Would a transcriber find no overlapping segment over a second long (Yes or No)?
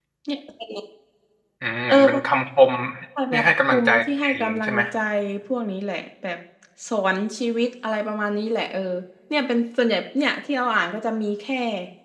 No